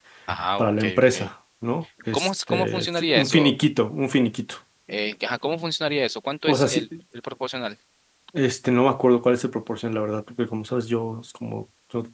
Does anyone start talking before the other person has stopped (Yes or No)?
Yes